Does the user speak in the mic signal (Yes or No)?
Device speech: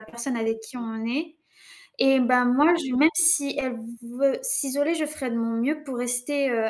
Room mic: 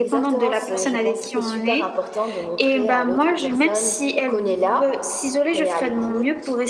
Yes